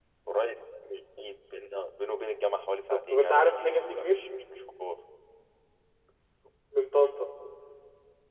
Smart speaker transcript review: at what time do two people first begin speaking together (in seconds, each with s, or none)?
2.9 s